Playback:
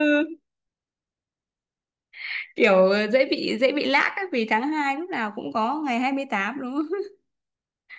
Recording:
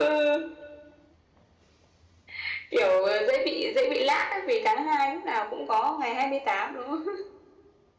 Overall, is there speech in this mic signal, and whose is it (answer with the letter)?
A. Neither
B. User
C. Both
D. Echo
D